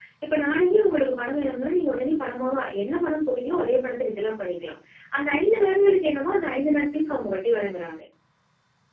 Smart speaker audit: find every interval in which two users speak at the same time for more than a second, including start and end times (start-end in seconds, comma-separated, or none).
none